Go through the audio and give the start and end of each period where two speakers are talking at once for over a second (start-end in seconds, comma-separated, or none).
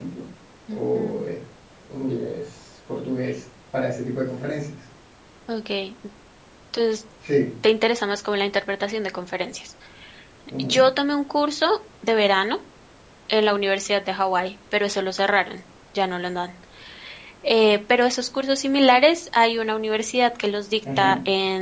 none